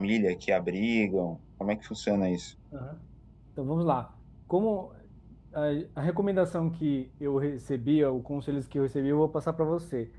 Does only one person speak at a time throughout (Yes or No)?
Yes